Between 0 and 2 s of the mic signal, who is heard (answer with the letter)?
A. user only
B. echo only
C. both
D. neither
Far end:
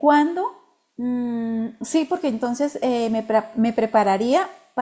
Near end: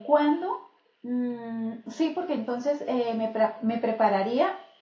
B